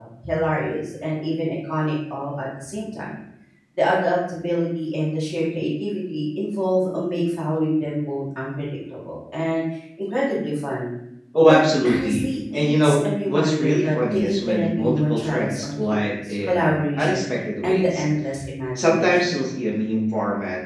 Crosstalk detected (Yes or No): Yes